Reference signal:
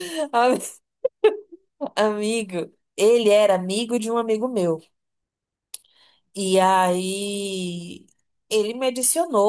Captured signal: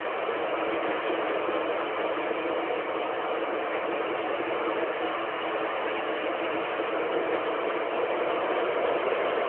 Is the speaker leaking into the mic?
No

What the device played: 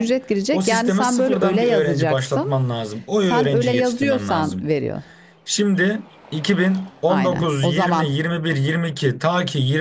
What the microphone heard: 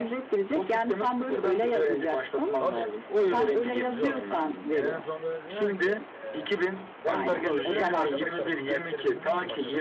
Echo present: Yes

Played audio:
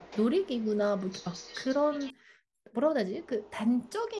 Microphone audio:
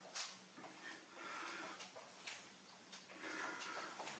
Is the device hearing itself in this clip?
No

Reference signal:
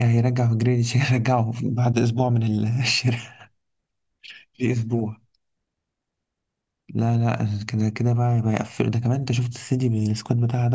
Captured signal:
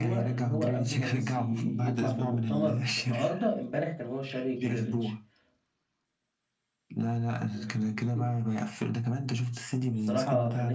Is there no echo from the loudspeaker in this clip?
No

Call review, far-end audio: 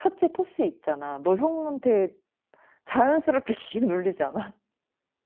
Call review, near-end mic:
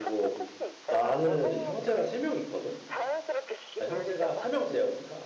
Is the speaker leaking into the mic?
Yes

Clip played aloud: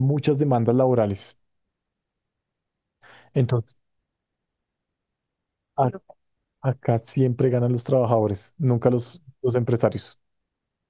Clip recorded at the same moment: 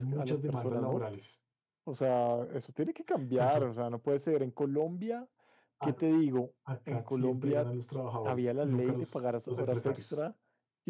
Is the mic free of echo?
No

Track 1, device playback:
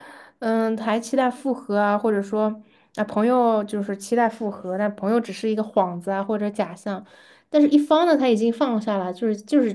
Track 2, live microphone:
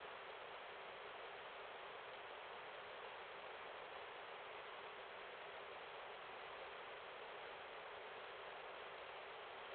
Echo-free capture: Yes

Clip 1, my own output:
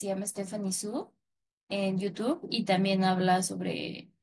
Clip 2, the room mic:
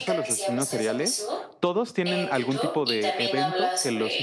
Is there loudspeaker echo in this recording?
Yes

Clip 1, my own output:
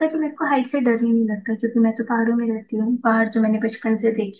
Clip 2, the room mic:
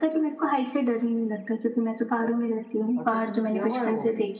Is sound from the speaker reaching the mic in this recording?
Yes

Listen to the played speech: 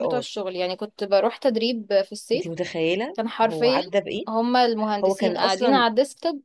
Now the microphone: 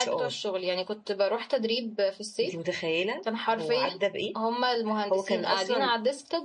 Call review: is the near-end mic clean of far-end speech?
No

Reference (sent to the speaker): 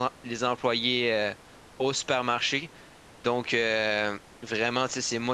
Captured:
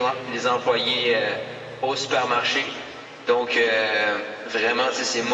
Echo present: Yes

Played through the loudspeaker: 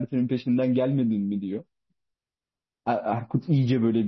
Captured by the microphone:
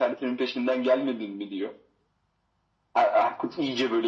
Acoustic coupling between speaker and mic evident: Yes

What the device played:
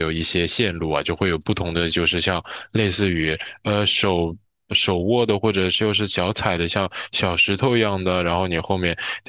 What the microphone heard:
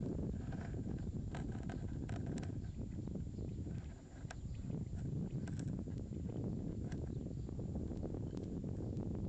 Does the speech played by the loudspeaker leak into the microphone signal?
No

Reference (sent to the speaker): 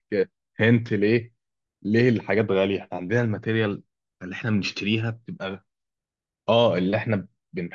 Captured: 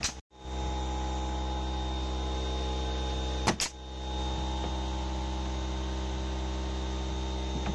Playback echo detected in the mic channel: No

